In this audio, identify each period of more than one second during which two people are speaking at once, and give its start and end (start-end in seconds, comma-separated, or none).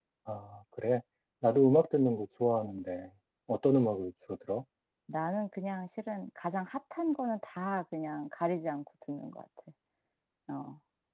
none